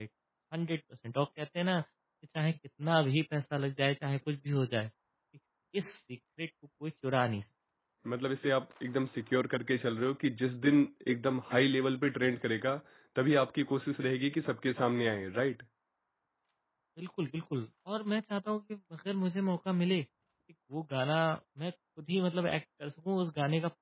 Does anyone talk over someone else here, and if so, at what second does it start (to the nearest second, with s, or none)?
none